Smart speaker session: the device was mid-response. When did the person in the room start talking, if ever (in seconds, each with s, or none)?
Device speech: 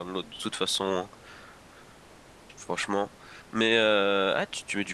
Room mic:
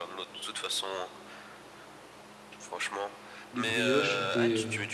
3.5 s